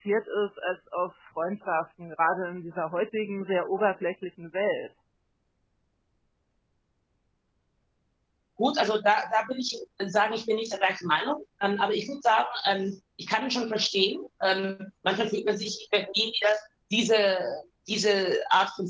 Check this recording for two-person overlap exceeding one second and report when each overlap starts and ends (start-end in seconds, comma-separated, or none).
none